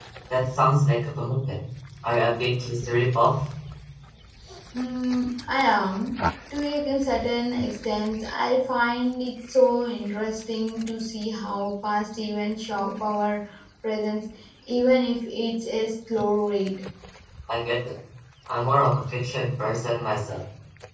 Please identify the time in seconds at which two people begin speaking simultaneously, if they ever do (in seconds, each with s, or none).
none